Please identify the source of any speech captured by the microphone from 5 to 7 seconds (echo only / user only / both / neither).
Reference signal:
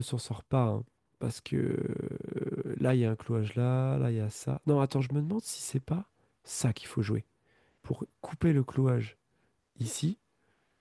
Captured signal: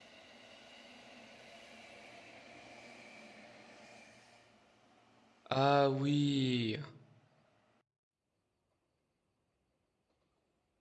user only